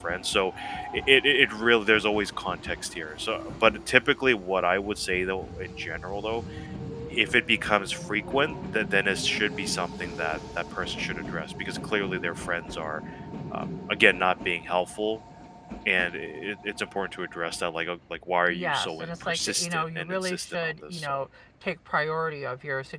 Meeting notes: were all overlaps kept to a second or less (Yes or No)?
No